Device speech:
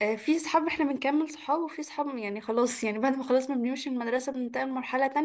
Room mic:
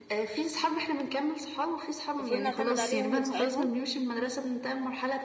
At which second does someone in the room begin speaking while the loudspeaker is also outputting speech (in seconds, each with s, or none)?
2.2 s